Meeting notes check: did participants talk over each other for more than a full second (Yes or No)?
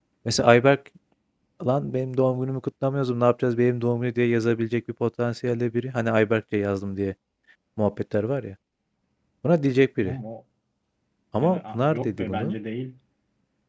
Yes